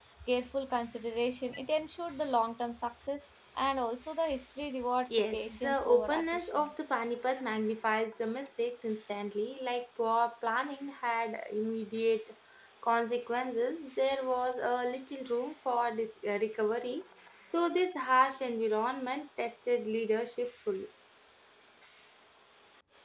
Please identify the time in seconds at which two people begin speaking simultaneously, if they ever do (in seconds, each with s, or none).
5.1 s